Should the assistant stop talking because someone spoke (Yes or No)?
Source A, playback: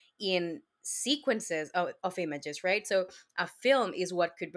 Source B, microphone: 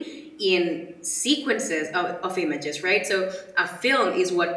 No